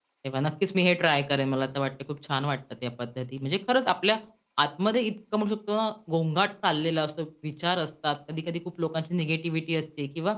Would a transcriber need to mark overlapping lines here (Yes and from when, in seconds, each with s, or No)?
No